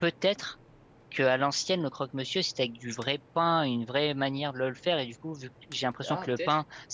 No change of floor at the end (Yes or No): Yes